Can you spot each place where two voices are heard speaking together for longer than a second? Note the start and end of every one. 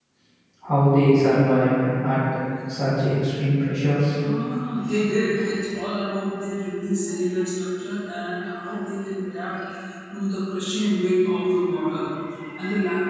none

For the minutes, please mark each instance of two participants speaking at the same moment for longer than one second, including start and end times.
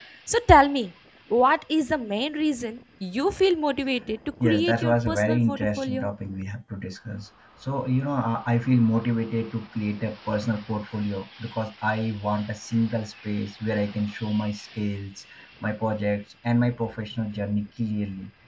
4.4-6.1

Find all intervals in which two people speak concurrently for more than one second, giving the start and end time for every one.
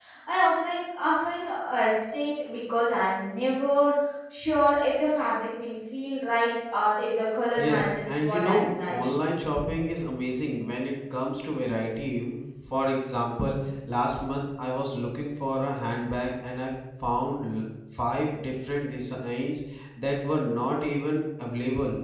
7.6-9.1

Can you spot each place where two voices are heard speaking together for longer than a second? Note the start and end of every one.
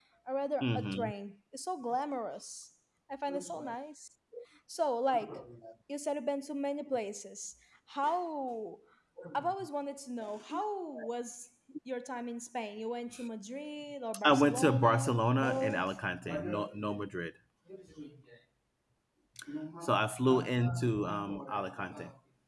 14.2-15.9

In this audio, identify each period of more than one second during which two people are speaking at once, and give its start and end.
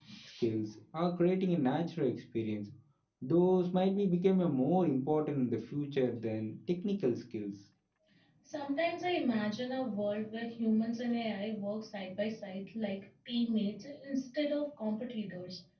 none

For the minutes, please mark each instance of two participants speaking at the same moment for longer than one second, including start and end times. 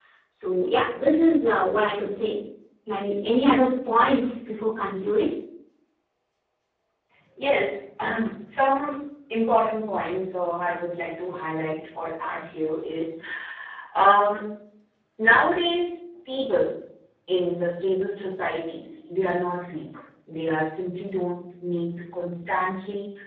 none

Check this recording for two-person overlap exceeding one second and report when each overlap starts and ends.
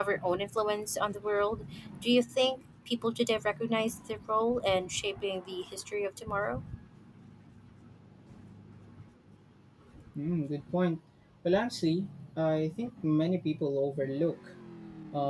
none

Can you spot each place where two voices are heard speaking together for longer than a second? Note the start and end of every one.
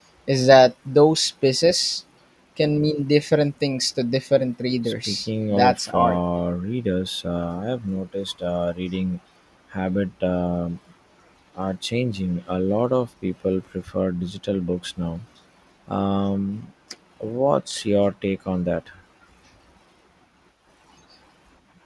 4.8-6.2

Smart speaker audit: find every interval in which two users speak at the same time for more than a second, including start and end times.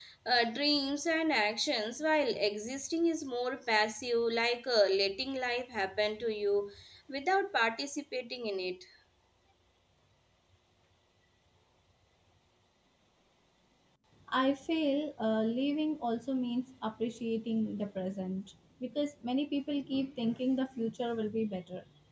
none

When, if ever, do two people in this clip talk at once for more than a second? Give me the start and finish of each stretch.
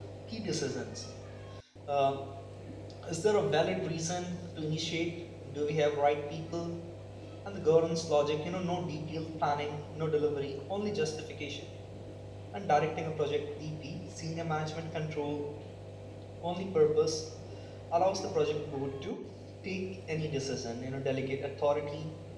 none

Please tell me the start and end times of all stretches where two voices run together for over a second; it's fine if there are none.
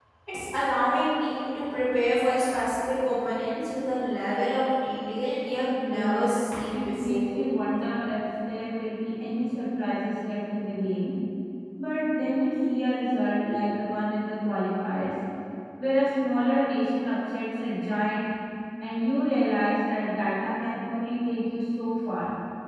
5.8-7.4

